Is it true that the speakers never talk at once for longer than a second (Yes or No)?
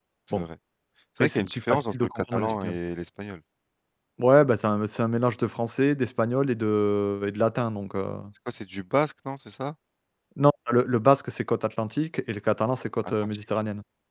No